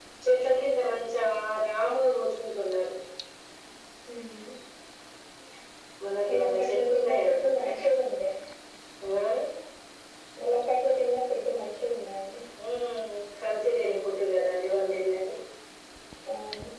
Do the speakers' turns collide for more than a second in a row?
Yes, from 6.3 s

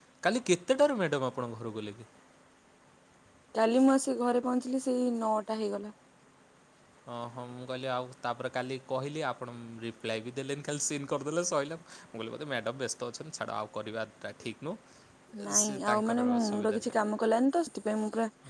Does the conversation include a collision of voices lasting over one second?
Yes, from 15.6 s

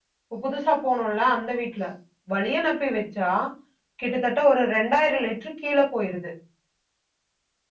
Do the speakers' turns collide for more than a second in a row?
No

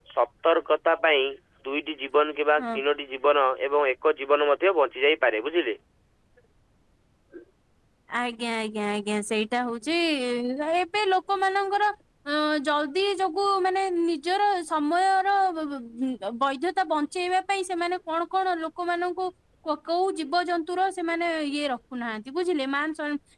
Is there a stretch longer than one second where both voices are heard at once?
No

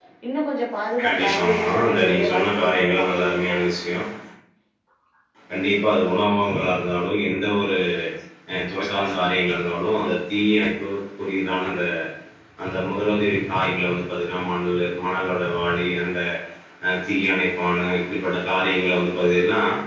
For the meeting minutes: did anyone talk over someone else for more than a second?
Yes, from 1.0 s

